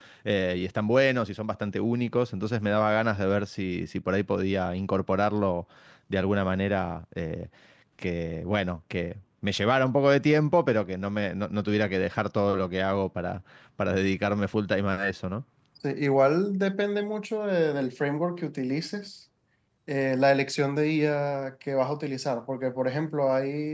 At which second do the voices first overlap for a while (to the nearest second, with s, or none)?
none